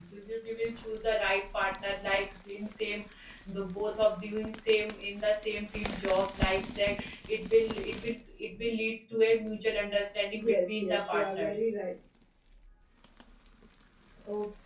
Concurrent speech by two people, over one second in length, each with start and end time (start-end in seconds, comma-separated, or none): 10.3-11.6